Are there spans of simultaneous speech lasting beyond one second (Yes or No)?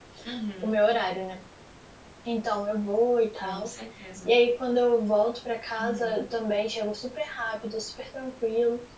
No